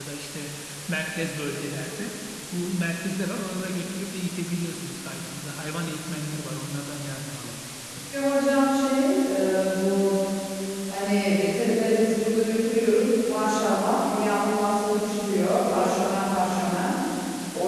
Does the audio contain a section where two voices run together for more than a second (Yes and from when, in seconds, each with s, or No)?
No